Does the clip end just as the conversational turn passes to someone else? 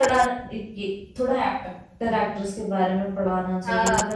No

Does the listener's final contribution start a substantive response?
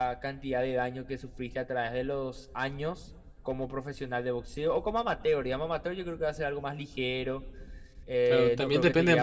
Yes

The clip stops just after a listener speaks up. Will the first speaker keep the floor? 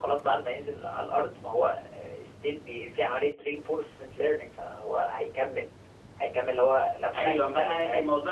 No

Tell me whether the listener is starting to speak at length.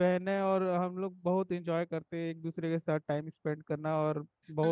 Yes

